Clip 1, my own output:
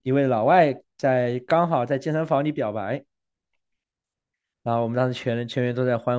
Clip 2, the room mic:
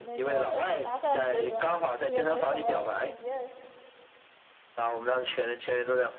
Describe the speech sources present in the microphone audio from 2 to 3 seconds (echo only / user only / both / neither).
both